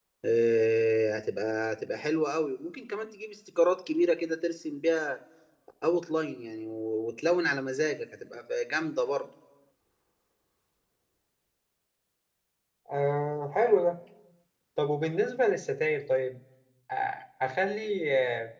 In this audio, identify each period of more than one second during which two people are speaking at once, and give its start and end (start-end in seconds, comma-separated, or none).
none